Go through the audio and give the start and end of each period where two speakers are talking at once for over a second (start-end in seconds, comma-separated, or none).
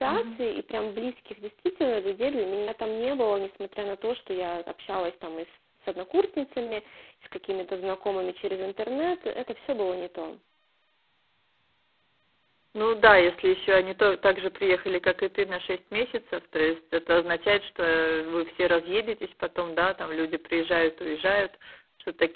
none